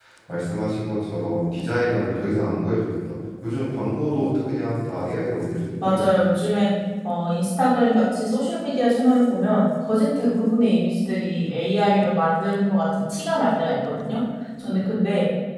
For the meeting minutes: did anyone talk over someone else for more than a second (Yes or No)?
No